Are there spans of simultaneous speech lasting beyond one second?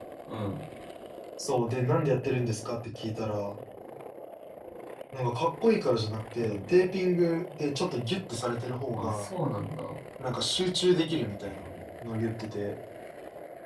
No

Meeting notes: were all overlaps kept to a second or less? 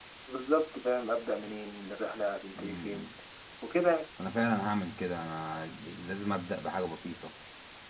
Yes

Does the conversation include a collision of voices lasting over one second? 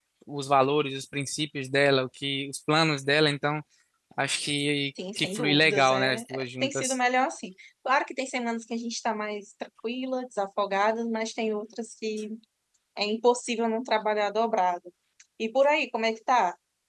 Yes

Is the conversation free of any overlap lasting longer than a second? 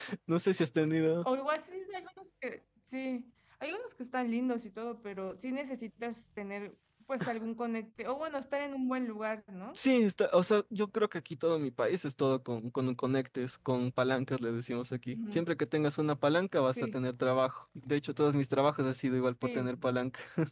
Yes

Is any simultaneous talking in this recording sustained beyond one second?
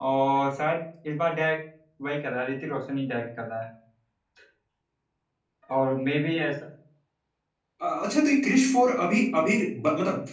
No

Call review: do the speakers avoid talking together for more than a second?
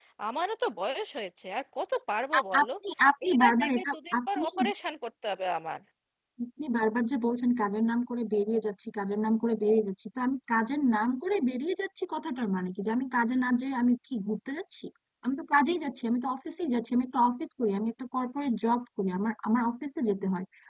No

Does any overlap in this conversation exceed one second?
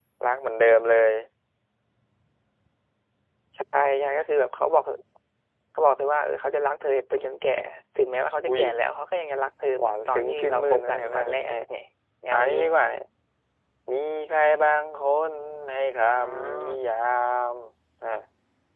Yes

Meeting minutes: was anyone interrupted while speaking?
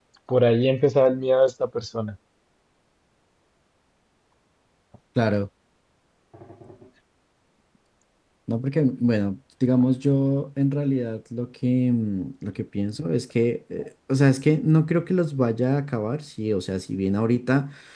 No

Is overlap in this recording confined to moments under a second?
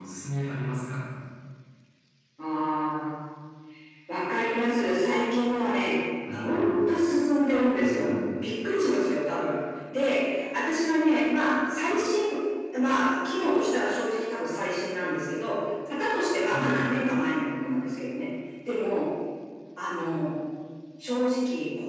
Yes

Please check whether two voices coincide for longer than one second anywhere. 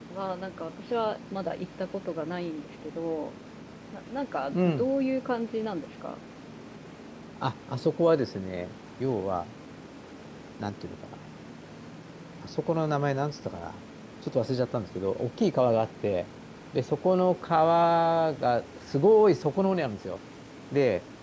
No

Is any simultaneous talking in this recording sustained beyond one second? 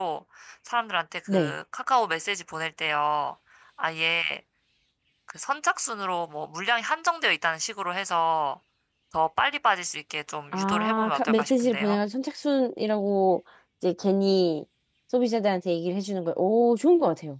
Yes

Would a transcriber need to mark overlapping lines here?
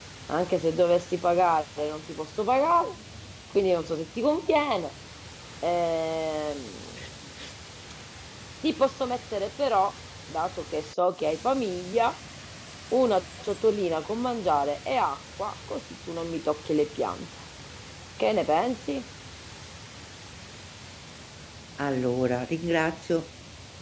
No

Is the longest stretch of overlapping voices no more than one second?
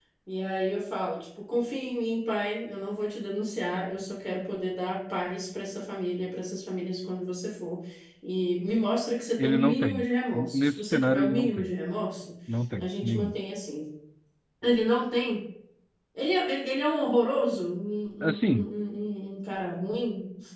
No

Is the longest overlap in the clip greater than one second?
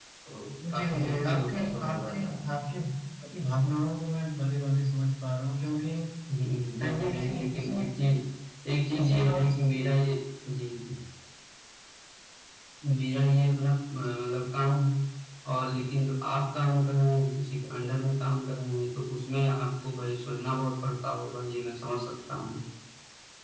Yes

